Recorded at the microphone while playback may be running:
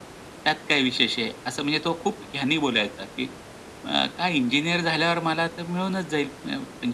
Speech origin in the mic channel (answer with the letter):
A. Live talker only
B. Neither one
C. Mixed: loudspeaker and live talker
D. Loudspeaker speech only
D